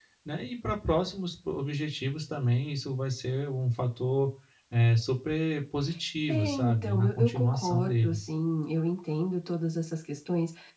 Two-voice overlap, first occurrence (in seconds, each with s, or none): 6.3 s